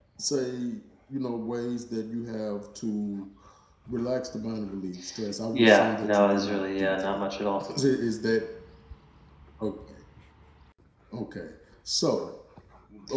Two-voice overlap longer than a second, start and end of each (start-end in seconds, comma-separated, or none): 5.5-7.2